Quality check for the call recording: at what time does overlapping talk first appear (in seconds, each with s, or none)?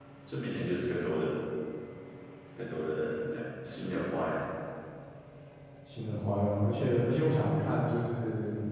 none